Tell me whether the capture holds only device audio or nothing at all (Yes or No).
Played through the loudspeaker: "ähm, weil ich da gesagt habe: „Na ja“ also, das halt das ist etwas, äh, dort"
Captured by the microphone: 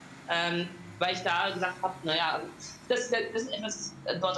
Yes